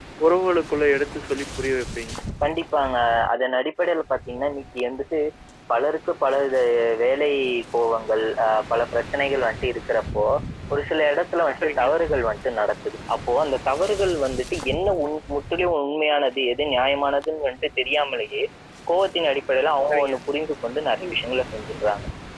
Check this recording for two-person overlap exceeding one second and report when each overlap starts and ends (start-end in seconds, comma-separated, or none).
none